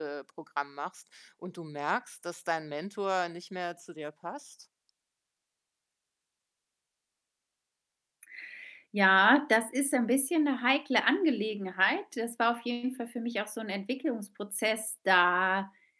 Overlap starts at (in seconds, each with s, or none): none